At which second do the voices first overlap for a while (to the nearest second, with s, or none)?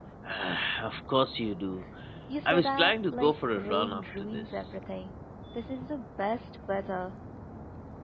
2 s